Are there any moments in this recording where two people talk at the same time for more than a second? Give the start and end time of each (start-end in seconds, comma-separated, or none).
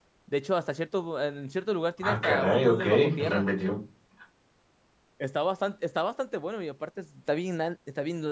2.0-3.5